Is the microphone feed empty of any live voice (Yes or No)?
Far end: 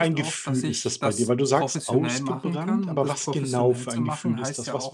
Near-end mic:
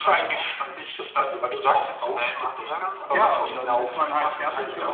No